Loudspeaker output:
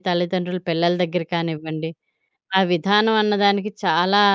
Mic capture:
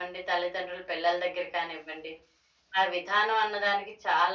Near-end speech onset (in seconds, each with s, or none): none